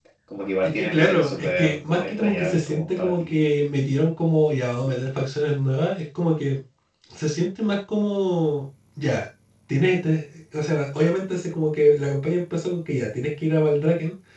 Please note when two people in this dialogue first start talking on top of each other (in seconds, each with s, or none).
0.6 s